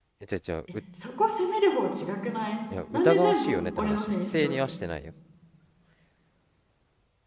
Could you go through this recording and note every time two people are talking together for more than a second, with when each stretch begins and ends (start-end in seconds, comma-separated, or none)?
2.9-4.8